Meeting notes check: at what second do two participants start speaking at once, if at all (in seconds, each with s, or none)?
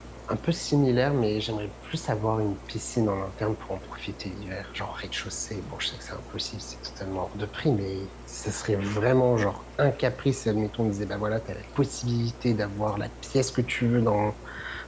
none